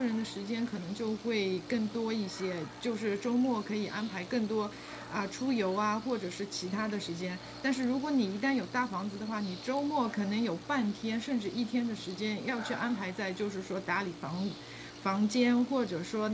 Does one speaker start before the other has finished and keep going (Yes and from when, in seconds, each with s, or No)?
No